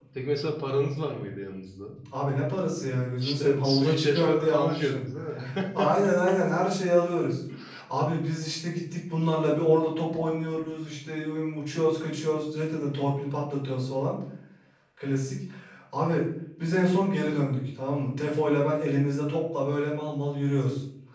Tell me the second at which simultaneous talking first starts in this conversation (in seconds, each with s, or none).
3.2 s